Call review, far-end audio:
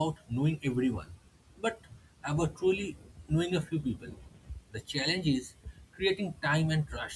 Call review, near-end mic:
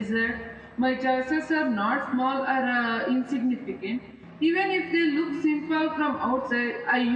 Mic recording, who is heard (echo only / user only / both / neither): user only